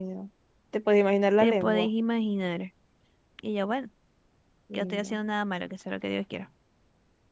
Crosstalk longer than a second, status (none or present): none